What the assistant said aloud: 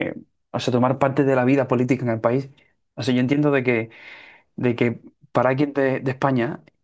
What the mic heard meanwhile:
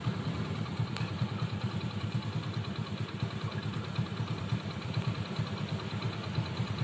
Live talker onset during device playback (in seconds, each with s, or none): none